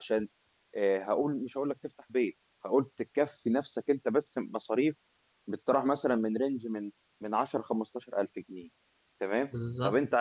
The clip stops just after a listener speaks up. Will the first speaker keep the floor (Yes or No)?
Yes